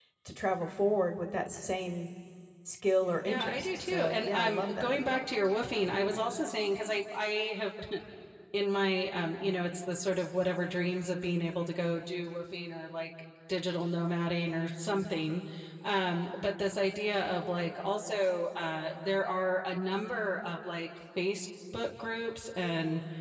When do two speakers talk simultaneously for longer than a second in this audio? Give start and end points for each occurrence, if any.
3.2-5.2

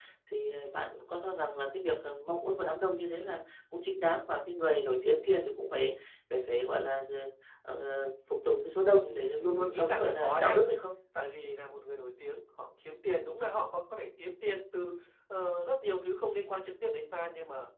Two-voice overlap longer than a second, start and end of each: 8.9-10.6

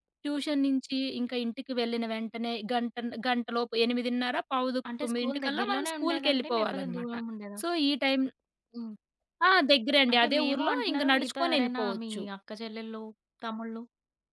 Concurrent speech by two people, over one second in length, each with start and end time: 5.0-7.0, 10.1-12.2

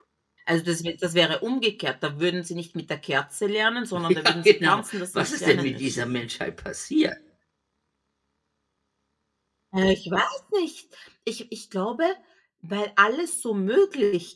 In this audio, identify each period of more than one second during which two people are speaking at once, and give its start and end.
4.1-6.2

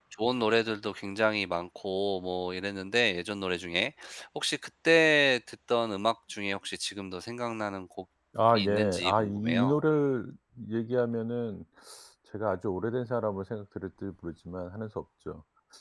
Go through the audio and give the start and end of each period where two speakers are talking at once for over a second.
8.5-9.8

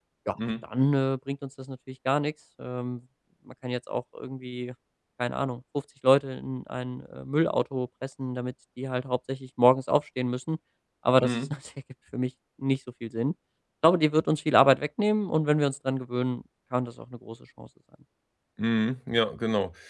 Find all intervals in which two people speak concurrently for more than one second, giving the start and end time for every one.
none

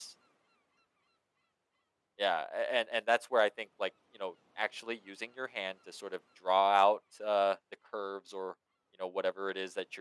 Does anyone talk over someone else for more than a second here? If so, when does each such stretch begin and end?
none

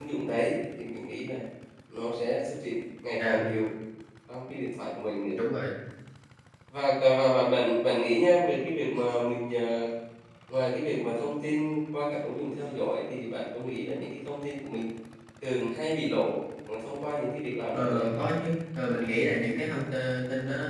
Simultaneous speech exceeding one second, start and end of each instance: none

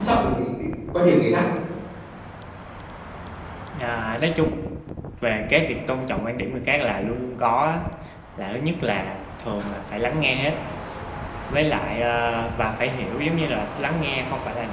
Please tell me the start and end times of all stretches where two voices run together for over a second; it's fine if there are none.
none

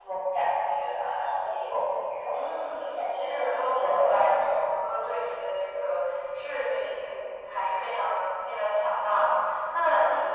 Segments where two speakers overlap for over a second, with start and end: 2.3-4.5

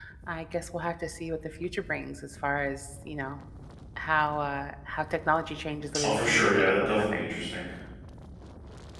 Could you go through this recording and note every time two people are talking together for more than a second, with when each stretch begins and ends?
6.0-7.3

